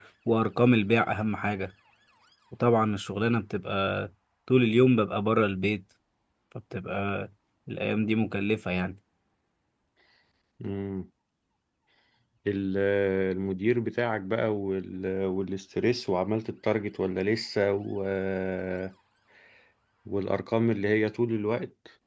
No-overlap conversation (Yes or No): Yes